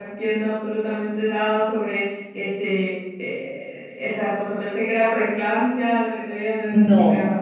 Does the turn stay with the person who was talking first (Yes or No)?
No